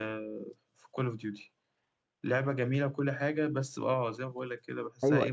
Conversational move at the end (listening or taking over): taking over